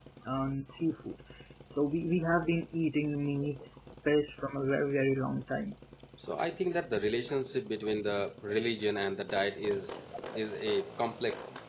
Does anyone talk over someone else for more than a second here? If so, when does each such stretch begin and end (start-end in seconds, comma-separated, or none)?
none